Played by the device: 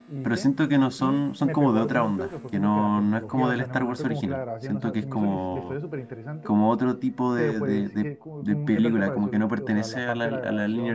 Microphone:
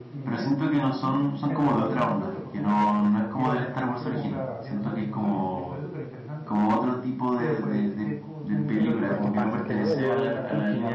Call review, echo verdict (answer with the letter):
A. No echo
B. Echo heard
B